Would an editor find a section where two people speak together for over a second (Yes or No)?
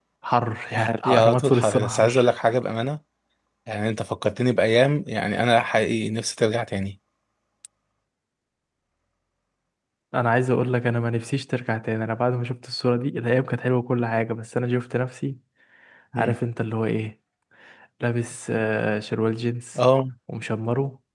Yes